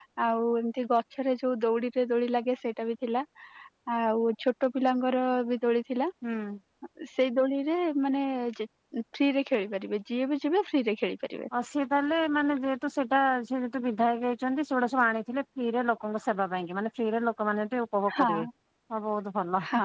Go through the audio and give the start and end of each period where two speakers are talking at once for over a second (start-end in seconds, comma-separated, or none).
none